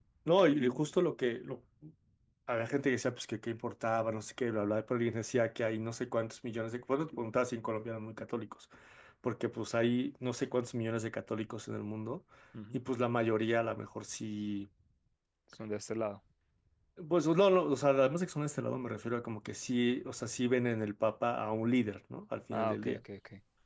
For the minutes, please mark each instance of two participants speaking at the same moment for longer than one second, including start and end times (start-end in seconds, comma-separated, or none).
none